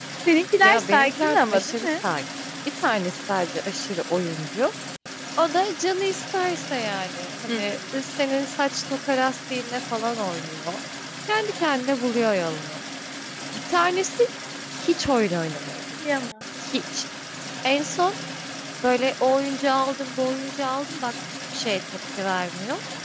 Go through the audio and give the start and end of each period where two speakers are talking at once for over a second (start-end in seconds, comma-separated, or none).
0.6-1.9